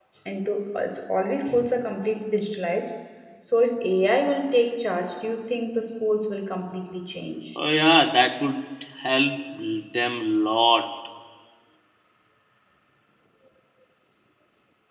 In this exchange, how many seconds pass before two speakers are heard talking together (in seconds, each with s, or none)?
none